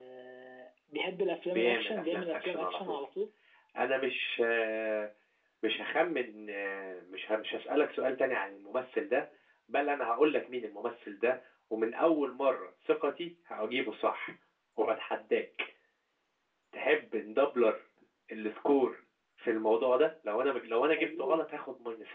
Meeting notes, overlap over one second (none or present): present